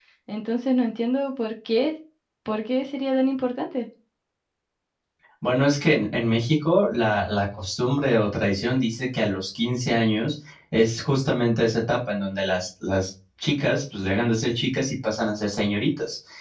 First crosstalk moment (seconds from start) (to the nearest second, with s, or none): none